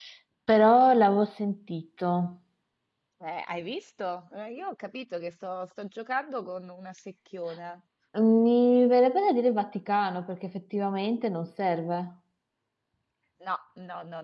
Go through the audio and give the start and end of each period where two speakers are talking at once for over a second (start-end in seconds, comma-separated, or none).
none